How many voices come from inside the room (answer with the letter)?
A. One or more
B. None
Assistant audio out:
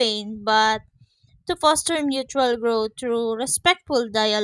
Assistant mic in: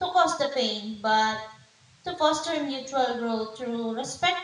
B